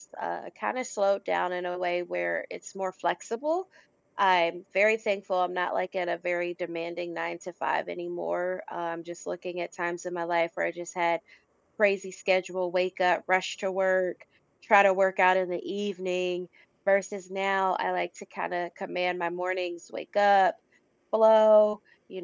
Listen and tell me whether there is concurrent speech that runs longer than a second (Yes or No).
No